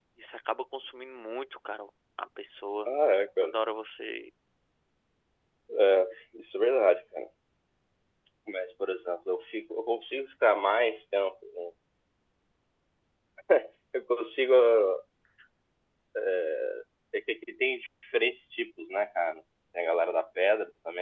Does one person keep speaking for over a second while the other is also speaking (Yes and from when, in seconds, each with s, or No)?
No